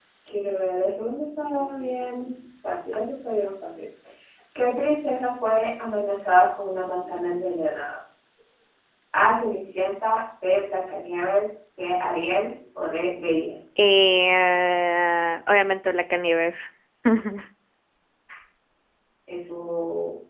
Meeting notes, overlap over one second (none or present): none